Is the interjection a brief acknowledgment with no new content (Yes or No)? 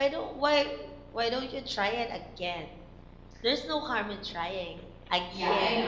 No